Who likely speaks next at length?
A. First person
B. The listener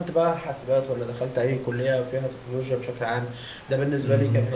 A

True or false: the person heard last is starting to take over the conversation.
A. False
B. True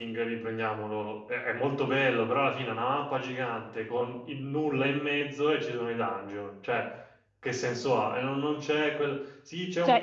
B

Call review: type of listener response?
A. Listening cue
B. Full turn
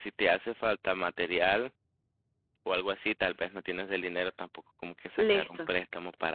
A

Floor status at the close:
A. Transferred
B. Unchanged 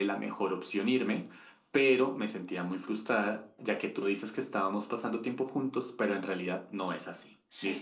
B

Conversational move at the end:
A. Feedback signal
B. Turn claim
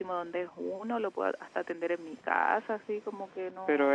B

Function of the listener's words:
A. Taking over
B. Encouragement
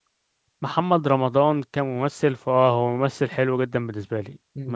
A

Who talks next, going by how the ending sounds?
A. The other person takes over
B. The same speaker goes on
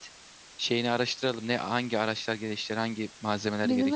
A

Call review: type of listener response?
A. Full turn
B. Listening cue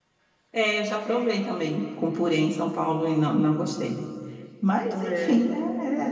B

